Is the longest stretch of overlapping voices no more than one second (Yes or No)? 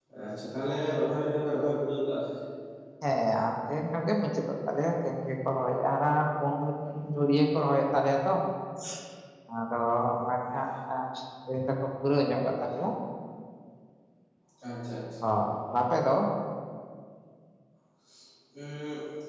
Yes